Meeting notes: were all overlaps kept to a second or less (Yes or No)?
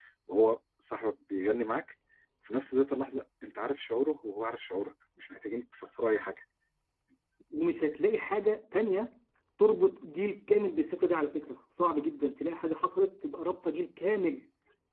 Yes